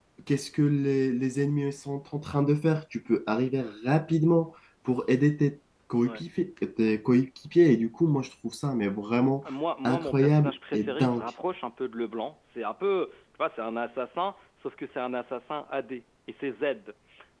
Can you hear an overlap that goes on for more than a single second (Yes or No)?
Yes